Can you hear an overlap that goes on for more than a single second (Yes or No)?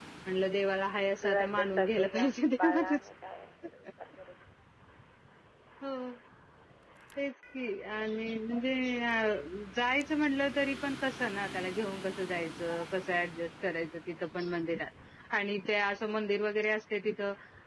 Yes